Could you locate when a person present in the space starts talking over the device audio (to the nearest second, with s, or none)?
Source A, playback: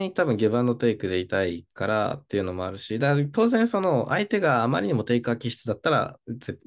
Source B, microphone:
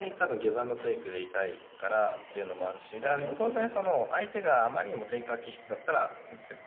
2 s